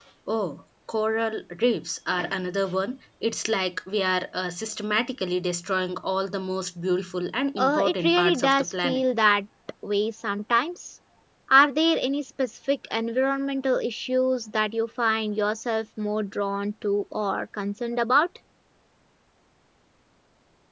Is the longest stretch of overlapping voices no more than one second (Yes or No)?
No